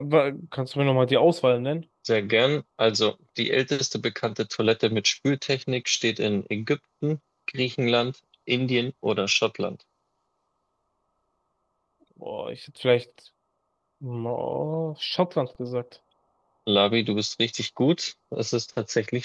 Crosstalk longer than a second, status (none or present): none